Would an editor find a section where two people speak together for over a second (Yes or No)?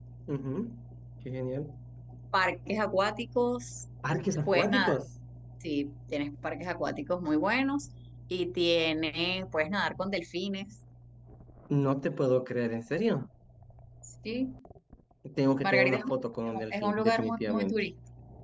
Yes